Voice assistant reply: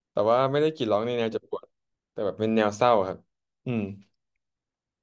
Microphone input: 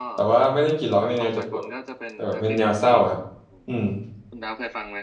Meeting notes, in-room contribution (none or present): present